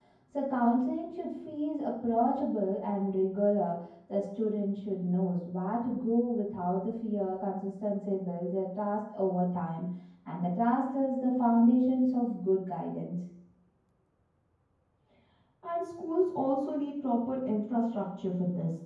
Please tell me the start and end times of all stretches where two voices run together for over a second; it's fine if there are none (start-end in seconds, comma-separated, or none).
none